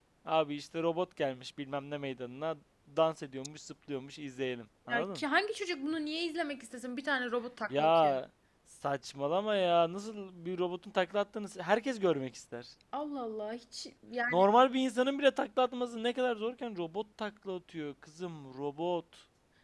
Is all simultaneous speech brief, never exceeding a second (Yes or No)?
Yes